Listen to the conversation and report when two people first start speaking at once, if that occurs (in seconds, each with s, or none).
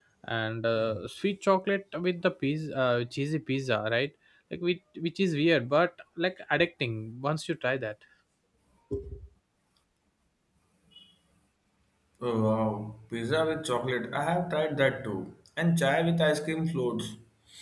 none